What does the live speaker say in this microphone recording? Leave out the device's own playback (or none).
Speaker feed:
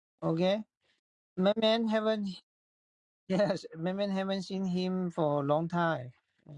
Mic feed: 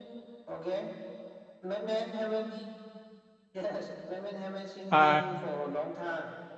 Uh